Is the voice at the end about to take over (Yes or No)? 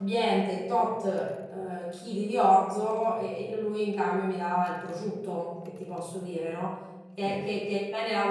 No